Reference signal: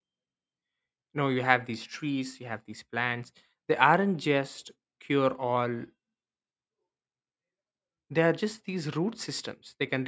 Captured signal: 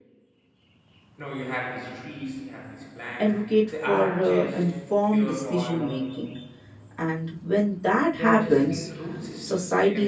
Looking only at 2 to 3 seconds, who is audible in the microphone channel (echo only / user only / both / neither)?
echo only